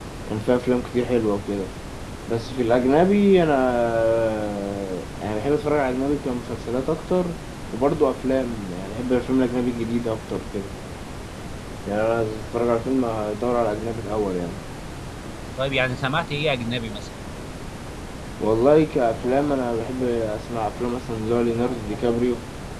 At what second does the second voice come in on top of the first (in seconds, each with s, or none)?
none